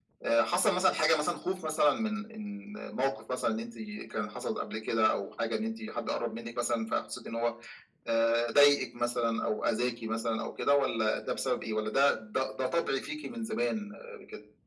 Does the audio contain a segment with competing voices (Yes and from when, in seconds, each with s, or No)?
No